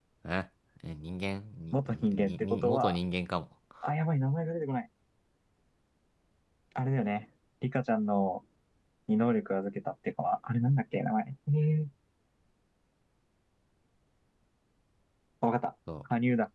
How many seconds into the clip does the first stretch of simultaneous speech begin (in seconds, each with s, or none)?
1.7 s